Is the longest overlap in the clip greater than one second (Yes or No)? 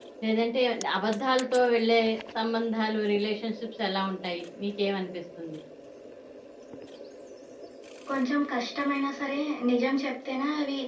No